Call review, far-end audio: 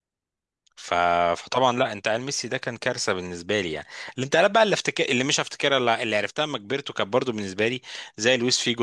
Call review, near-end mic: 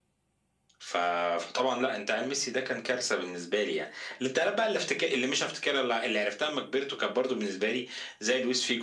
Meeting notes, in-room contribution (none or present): none